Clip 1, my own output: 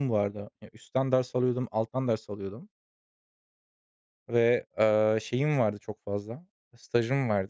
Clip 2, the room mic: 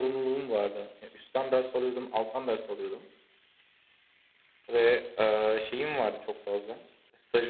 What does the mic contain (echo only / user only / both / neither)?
echo only